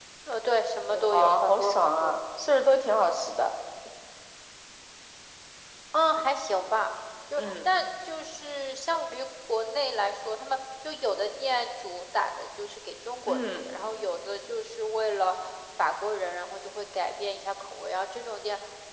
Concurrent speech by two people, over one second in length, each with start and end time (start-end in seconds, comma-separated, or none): 0.9-2.2